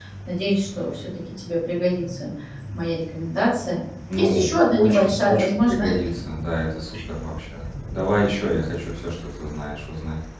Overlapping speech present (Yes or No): Yes